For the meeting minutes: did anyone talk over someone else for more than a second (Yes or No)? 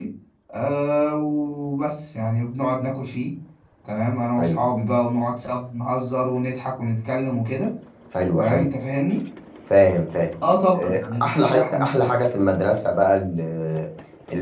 Yes